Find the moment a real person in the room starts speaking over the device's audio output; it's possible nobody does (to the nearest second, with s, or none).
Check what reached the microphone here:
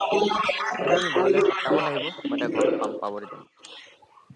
1 s